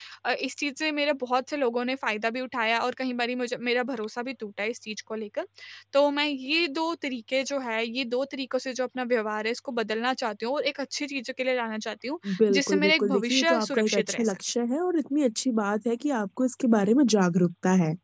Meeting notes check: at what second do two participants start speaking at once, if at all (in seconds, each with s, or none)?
12.2 s